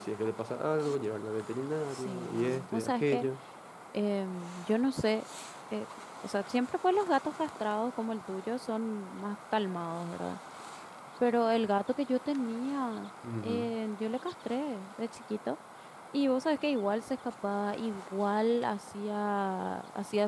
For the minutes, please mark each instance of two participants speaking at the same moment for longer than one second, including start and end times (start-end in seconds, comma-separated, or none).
1.9-3.2